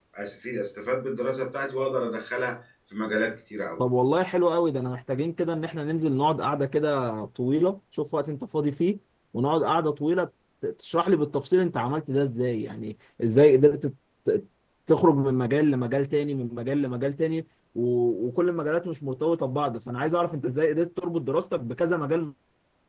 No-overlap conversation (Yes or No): Yes